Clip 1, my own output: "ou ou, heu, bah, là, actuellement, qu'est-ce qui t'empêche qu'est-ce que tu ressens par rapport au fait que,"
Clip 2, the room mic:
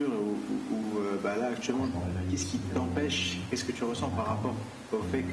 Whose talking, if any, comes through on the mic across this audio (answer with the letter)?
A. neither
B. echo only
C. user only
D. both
D